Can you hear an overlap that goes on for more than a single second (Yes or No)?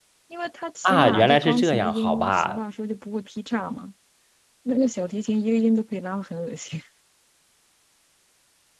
Yes